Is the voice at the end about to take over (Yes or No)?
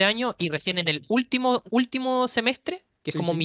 No